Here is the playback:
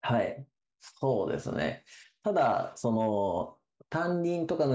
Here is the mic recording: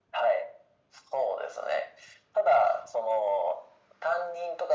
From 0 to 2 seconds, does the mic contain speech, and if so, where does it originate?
echo only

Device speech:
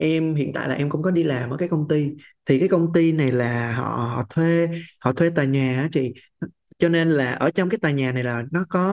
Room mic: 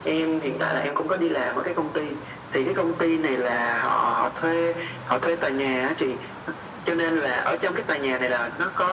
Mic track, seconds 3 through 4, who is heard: echo only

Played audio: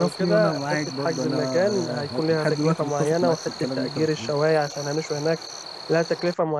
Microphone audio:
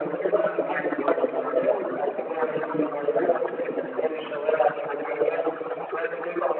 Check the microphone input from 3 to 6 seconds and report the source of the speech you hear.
echo only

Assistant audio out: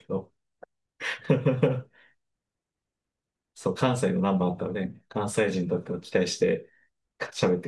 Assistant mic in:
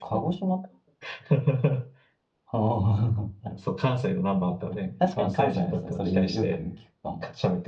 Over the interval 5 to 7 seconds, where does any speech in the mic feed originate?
both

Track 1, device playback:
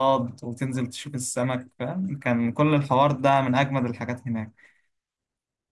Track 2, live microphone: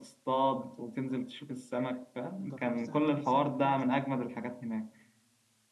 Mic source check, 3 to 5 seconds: both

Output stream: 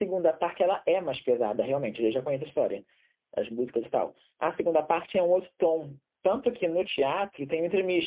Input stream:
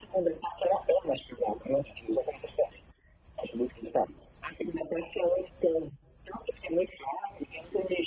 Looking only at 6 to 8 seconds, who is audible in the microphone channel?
echo only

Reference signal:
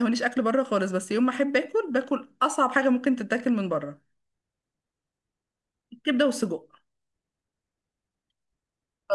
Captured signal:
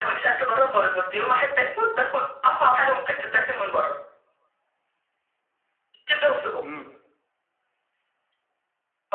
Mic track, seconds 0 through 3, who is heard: echo only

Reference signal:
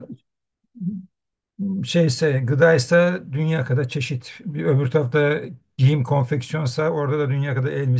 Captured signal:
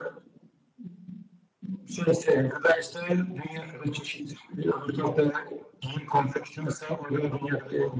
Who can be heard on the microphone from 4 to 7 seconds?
echo only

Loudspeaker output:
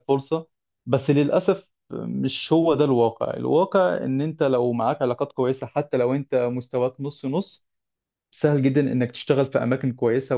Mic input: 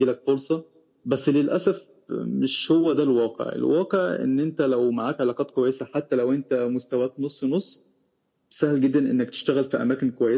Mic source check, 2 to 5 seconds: echo only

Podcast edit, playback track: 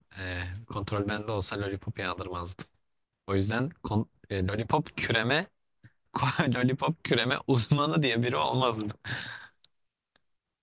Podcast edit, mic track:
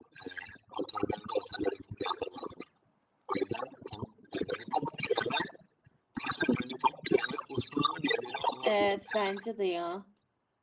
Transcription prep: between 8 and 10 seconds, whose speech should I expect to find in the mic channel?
both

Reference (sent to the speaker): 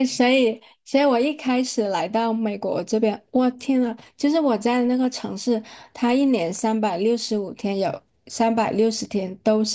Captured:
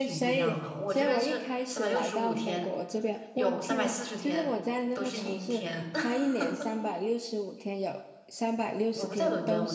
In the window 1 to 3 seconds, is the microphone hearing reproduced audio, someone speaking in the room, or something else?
both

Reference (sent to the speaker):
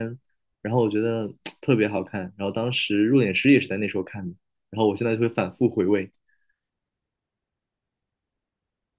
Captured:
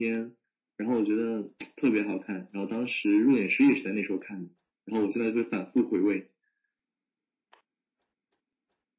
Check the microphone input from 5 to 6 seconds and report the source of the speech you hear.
echo only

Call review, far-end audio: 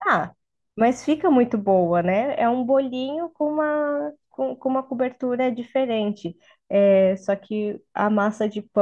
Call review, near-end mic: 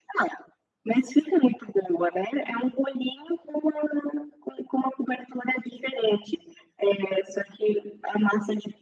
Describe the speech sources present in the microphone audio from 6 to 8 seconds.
echo only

